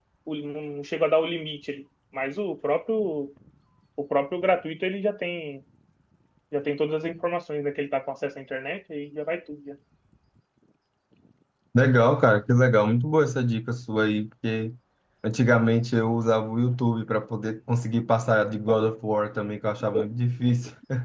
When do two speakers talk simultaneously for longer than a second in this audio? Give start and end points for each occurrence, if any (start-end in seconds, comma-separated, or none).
none